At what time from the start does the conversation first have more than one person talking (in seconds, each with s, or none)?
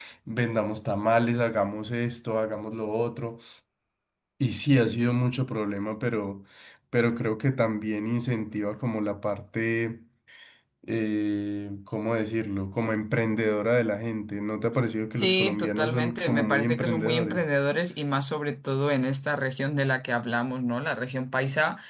15.1 s